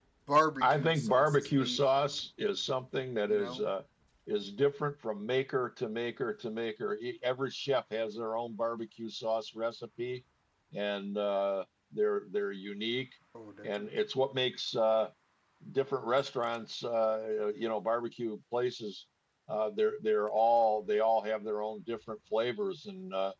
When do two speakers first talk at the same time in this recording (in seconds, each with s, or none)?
0.6 s